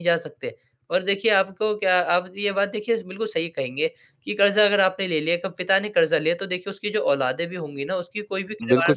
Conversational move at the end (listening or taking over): taking over